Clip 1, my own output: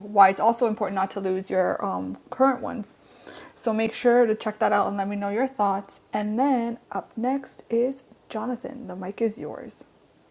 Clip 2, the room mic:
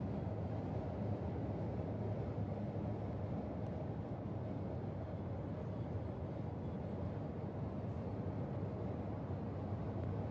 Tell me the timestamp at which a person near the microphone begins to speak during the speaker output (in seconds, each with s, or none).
none